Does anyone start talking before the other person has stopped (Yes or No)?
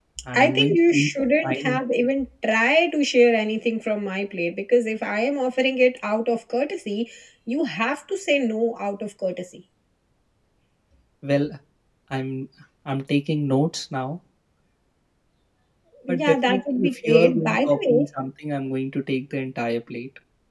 Yes